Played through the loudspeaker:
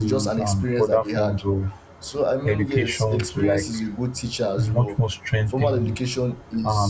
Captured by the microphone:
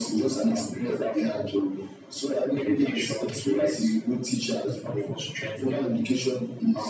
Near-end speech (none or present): none